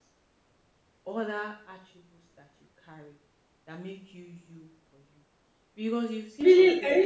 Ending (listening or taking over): taking over